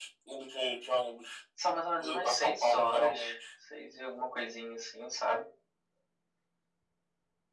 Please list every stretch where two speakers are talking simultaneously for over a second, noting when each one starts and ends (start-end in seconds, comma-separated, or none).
2.0-3.2